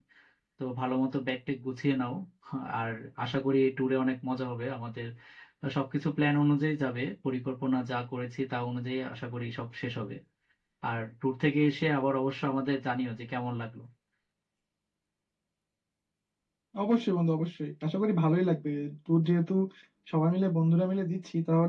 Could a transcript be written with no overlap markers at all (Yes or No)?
Yes